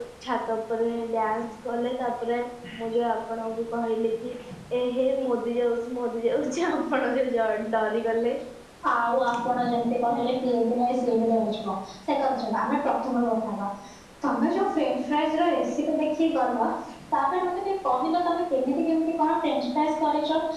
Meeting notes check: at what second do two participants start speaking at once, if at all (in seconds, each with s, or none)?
none